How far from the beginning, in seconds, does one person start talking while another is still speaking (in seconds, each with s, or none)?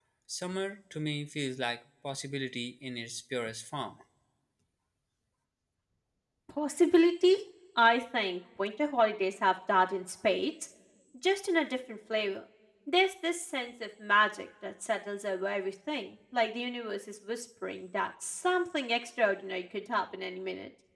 none